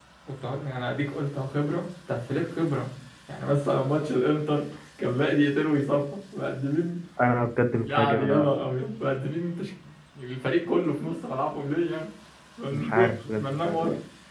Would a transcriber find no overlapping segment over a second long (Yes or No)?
No